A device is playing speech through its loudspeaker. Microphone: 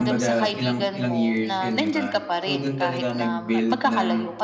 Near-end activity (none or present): present